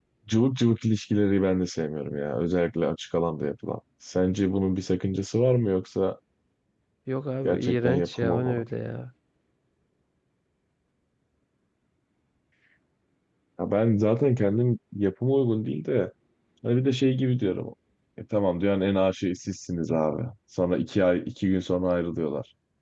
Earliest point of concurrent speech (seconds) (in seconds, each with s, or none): 7.4 s